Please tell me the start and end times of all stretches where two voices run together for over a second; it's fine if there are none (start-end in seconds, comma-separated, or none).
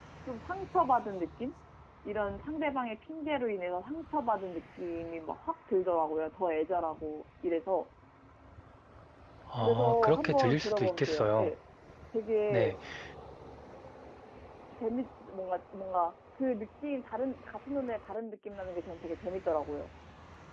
9.6-11.5